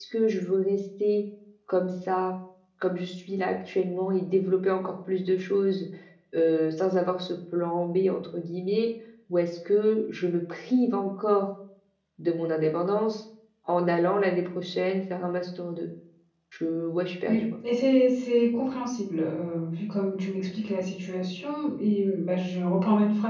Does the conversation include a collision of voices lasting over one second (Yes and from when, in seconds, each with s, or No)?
No